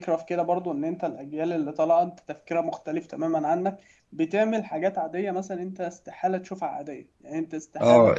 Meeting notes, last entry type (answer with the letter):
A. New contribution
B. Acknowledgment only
A